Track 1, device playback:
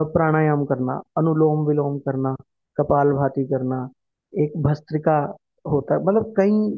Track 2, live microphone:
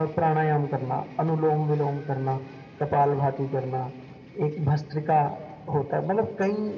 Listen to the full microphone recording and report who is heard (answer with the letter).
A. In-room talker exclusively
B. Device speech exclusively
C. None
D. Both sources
B